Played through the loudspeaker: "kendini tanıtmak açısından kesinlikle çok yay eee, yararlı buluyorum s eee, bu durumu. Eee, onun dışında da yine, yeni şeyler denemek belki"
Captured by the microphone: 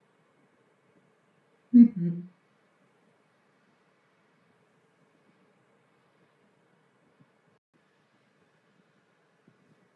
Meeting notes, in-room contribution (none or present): present